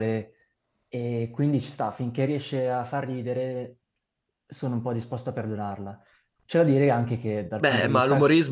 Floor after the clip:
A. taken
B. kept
A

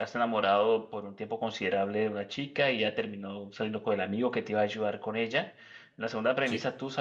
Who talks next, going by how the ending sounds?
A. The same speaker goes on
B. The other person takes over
A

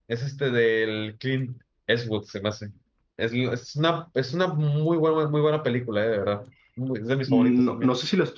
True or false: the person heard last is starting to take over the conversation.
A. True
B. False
A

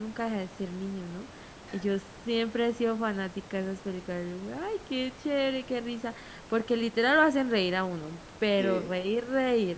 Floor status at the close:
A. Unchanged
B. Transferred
A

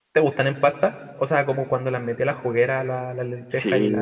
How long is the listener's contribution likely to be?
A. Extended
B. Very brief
A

